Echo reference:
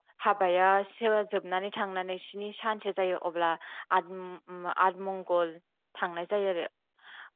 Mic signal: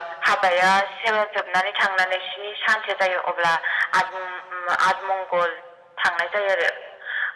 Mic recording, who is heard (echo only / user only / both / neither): echo only